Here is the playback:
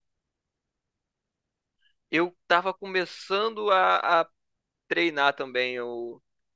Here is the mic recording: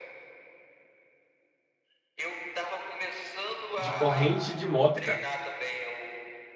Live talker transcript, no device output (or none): de corrente de moto, cara.